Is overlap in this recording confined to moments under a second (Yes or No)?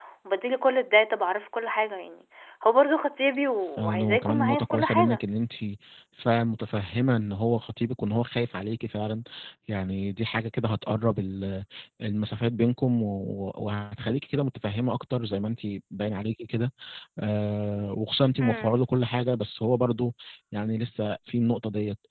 No